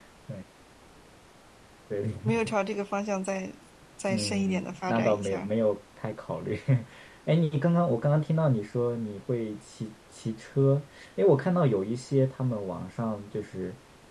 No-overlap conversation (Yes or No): No